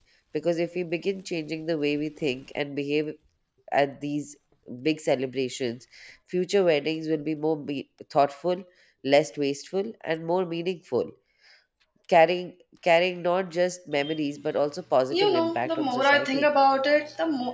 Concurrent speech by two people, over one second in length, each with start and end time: 15.1-16.5

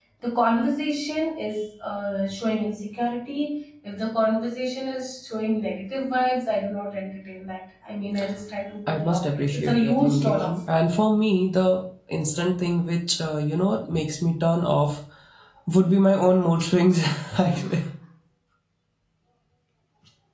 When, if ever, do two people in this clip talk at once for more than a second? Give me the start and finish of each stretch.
8.9-10.5

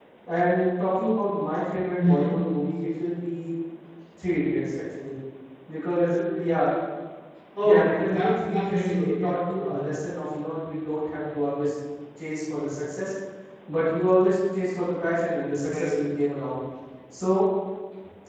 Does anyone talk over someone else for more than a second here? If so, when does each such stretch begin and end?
7.6-9.8

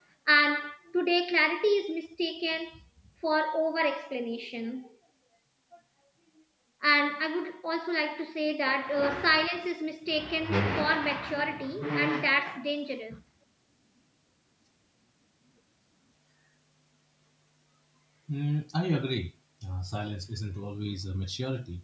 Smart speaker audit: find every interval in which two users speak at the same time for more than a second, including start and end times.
none

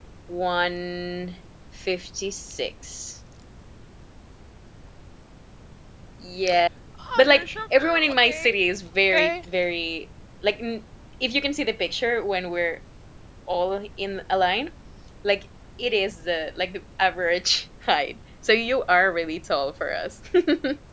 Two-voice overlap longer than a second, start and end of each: 7.2-8.5

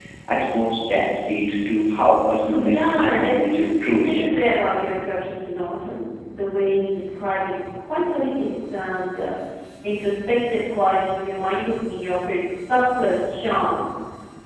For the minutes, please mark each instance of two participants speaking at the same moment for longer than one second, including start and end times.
2.5-4.4

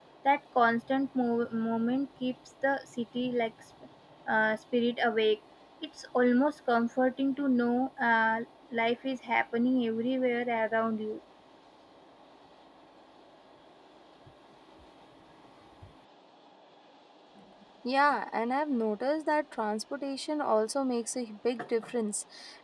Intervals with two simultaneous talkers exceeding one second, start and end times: none

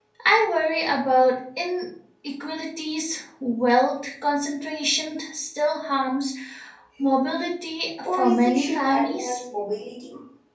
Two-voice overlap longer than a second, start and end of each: 8.1-9.4

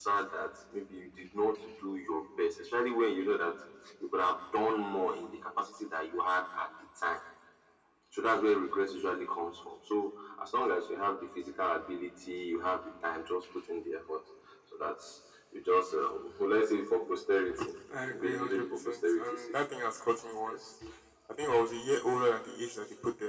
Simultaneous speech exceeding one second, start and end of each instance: 18.2-19.6

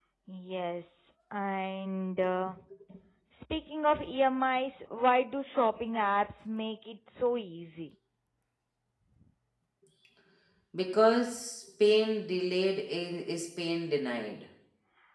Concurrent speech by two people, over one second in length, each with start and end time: none

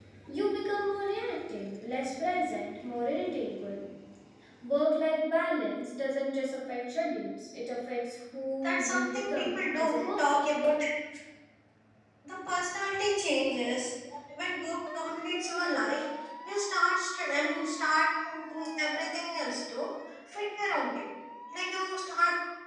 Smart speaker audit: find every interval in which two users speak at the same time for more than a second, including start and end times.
8.6-10.4

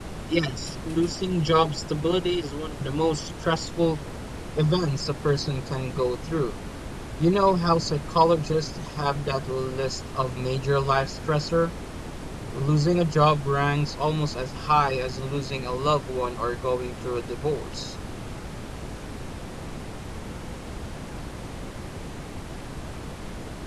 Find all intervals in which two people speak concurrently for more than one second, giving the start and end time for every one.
none

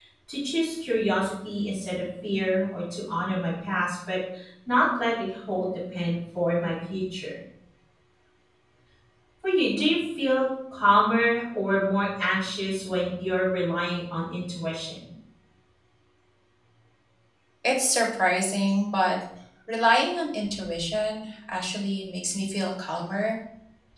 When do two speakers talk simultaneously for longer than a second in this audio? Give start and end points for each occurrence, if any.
none

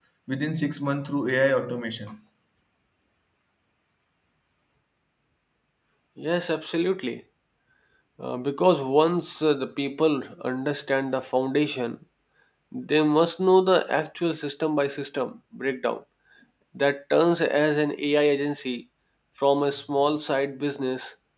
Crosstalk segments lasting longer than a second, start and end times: none

